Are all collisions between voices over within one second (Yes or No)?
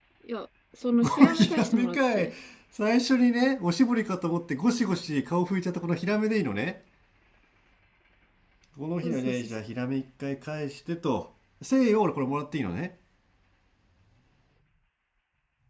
No